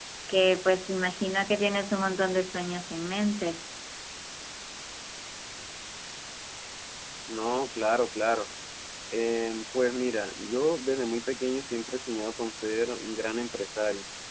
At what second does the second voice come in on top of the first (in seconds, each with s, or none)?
none